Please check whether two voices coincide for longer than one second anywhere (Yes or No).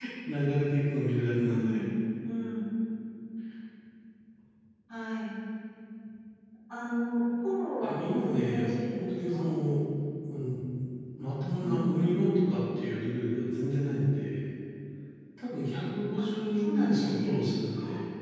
Yes